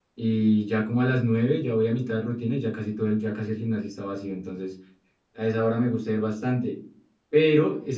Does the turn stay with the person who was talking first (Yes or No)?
Yes